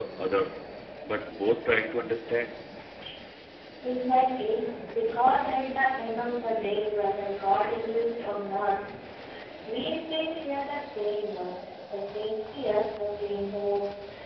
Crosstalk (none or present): none